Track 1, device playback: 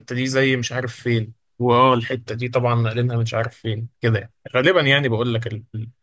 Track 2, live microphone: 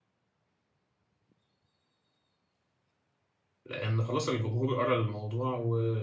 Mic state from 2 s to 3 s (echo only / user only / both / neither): neither